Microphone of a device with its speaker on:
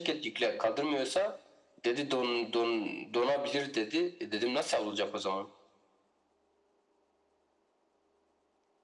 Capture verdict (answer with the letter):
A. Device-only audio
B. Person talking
A